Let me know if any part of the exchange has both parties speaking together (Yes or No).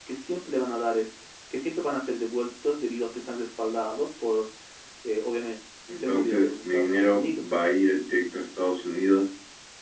Yes